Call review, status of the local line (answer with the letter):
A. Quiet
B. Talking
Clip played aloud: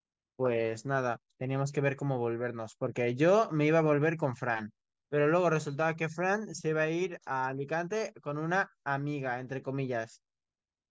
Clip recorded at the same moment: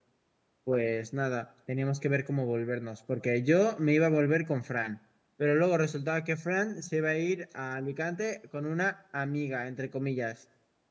A